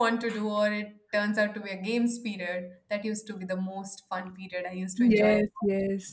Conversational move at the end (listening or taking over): taking over